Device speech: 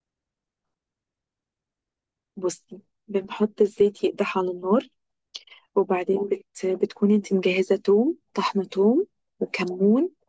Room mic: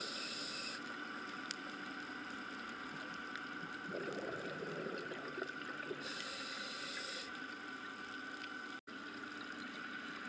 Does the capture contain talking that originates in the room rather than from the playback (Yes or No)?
No